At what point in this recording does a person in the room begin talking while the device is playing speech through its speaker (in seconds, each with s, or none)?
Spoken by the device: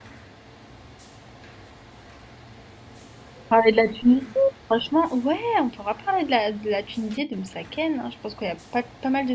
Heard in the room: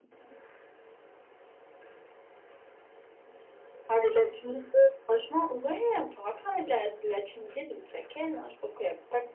none